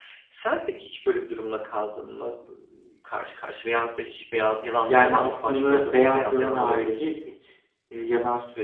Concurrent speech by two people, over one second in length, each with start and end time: 4.9-7.1

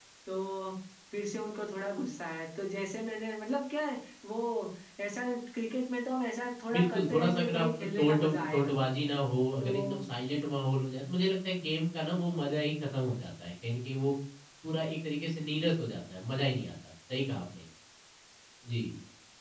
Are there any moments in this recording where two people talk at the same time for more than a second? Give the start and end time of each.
6.7-8.7

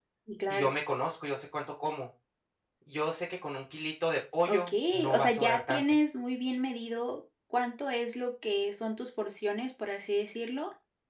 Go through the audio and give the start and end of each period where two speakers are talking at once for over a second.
4.5-5.8

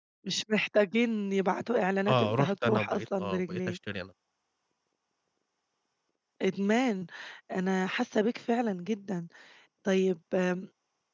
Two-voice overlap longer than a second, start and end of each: 2.1-3.8

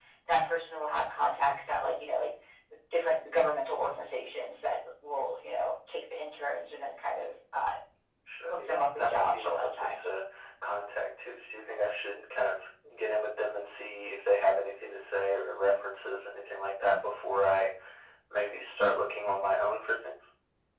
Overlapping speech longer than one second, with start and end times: 8.5-10.1

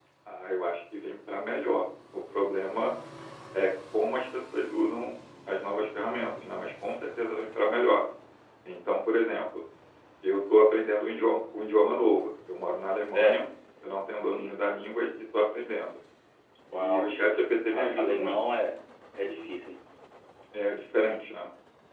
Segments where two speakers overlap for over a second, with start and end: 16.7-18.4

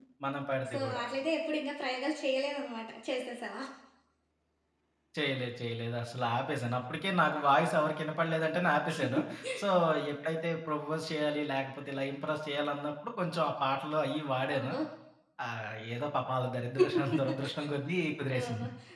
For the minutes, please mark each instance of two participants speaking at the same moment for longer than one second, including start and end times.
none

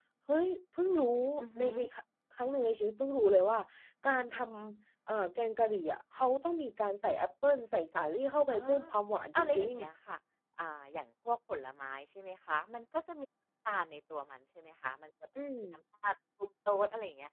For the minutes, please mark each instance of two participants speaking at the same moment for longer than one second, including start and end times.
none

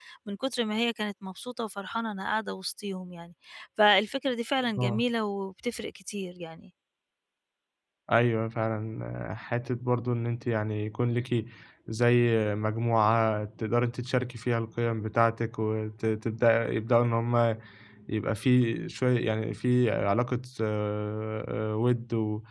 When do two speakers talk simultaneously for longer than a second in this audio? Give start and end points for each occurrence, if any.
none

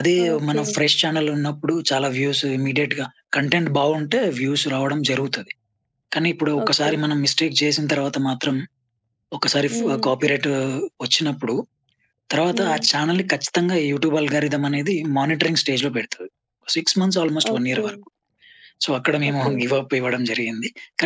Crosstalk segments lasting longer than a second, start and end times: none

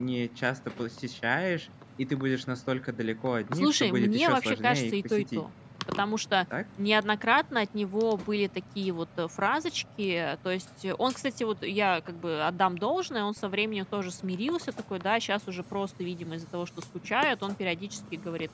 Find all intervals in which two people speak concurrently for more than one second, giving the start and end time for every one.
3.6-5.5

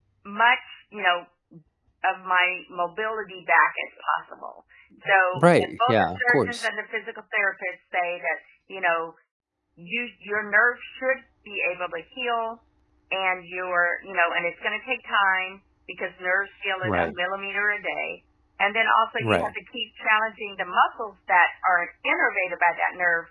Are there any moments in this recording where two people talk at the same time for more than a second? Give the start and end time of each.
5.3-6.7

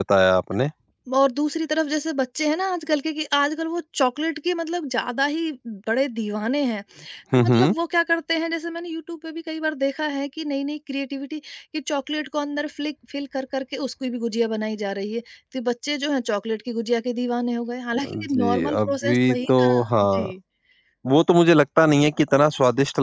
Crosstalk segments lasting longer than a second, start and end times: 18.0-20.3

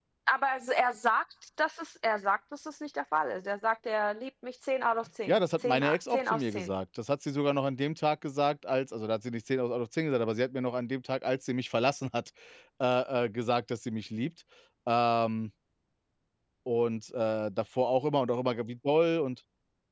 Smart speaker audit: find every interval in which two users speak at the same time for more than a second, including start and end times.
5.3-6.7

